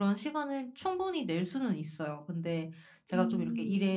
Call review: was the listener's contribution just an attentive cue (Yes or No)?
Yes